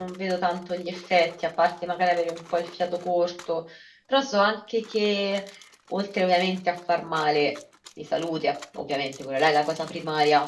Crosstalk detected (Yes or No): No